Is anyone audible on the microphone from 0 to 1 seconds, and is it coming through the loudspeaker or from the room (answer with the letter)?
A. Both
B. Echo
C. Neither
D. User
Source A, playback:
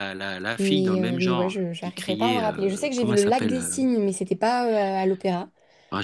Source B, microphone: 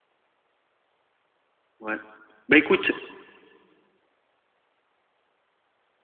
C